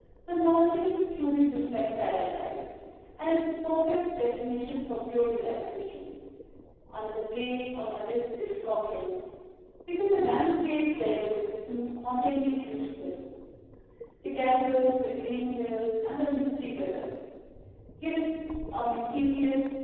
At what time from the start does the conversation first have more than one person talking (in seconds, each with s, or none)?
none